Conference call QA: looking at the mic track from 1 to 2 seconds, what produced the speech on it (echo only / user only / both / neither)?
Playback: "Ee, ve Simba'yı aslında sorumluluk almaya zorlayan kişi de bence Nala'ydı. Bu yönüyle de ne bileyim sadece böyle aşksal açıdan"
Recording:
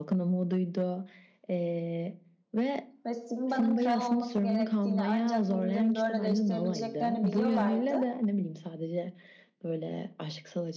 echo only